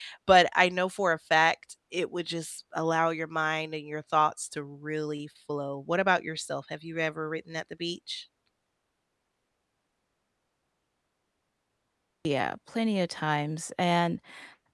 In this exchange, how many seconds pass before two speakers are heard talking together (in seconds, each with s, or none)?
none